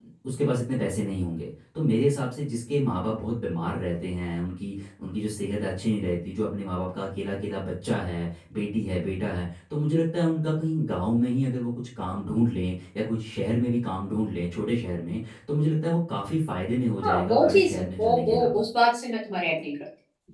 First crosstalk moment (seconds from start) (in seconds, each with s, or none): 17.0 s